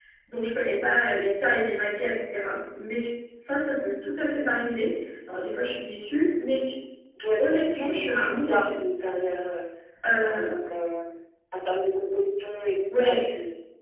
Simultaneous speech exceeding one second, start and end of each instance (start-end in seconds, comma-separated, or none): 7.5-8.8